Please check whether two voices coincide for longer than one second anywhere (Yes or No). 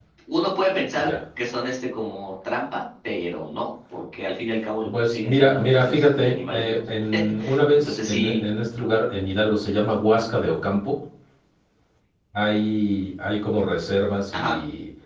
Yes